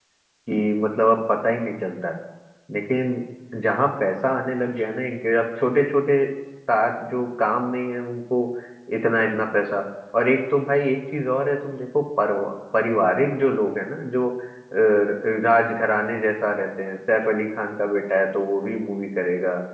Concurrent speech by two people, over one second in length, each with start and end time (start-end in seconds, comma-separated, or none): none